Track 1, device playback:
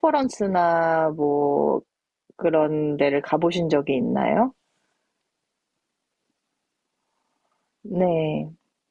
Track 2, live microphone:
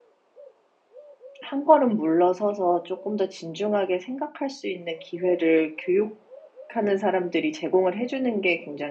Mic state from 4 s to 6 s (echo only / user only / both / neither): user only